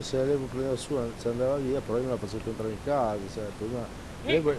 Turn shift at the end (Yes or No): No